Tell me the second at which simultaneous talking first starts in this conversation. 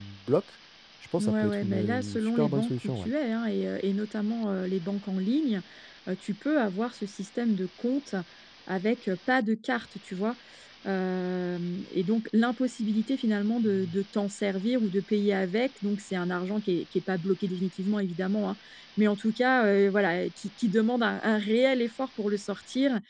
1.2 s

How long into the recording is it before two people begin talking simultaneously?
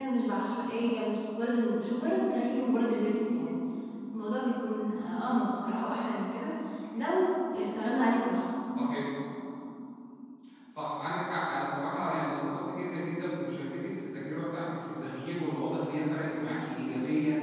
none

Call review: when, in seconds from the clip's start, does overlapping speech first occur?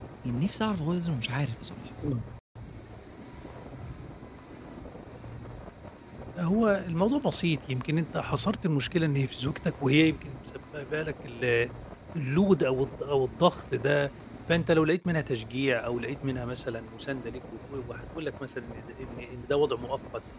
none

